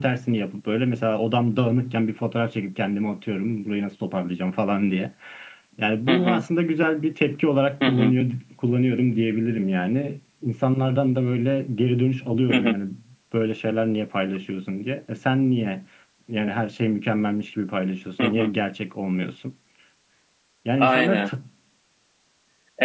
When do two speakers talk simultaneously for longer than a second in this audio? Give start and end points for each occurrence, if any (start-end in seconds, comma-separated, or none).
none